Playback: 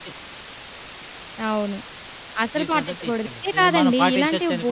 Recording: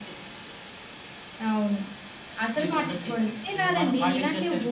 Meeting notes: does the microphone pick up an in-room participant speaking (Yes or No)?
No